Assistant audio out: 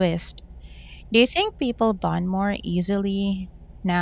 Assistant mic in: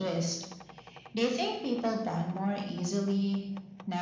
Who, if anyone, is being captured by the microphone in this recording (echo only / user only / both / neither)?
echo only